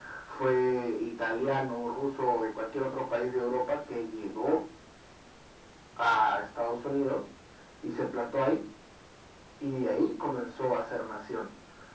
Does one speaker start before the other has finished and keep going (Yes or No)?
No